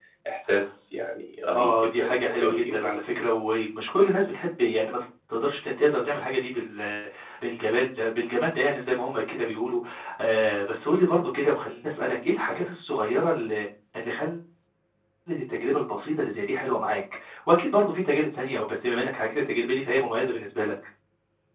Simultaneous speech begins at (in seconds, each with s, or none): 1.5 s